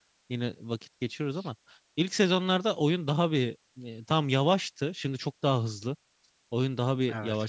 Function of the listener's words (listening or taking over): listening